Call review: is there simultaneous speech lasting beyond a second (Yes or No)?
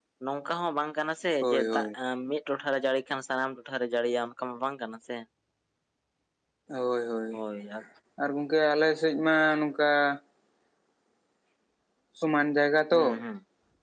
No